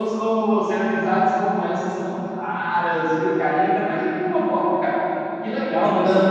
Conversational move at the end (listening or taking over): listening